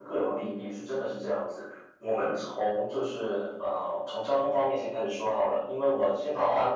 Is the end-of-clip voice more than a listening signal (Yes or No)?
No